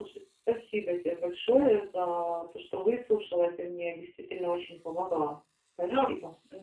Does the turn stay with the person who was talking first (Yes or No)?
No